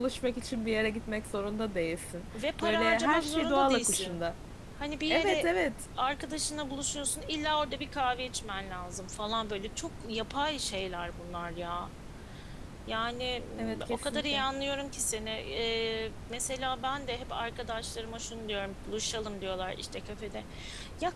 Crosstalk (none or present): present